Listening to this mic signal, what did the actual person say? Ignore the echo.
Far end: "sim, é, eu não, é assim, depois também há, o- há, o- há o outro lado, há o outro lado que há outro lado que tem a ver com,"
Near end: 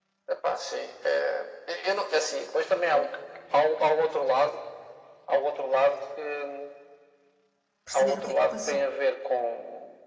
perceber o que é que passou

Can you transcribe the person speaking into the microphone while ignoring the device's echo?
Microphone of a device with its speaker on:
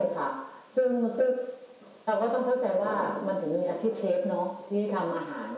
none

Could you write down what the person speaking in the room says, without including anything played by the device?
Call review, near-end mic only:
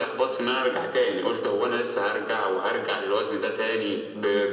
none

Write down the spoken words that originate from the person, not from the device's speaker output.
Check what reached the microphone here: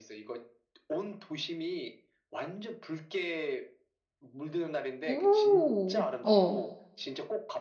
오, 어.

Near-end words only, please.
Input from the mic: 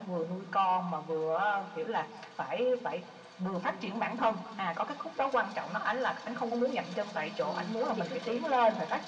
à, thôi chị cứ kể tiếp đi

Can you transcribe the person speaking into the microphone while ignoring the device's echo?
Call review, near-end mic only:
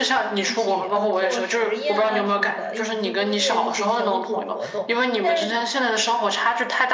一起呃做实验啊什么的，一起做作业这些小组活动，但是

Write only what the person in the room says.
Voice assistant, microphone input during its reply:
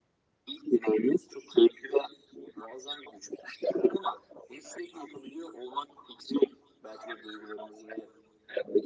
none

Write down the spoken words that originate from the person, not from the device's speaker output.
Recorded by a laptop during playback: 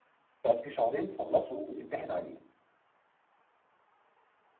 تقعد فيه شهرين تخلصه وتمتحن عليه

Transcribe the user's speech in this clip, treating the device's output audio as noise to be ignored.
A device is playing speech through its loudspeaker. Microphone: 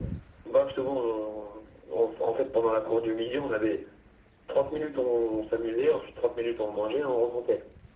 none

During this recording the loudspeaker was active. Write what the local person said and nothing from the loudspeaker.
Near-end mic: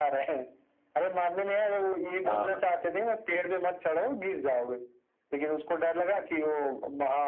हाँ

